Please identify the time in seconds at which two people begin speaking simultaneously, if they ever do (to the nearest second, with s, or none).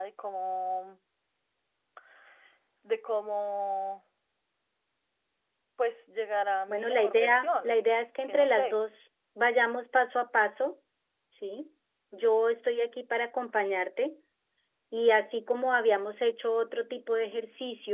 7 s